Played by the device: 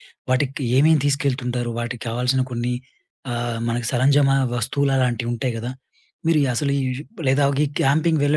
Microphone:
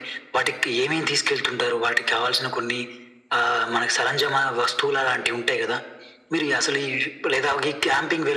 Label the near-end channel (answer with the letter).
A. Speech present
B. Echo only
B